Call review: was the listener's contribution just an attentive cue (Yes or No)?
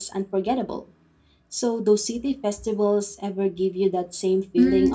No